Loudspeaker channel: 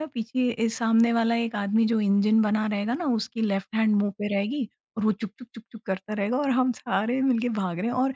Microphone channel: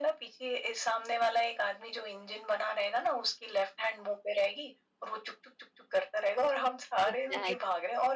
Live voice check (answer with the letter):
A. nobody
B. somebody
B